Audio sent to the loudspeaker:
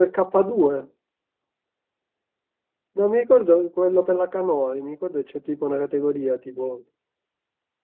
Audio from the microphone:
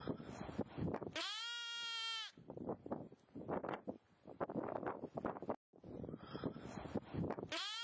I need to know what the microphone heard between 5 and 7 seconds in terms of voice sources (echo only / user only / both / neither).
neither